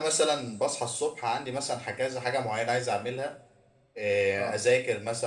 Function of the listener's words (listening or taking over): listening